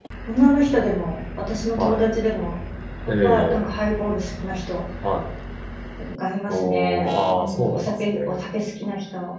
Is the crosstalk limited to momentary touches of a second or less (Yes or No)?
No